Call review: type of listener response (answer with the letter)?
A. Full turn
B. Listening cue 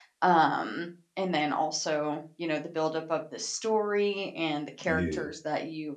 B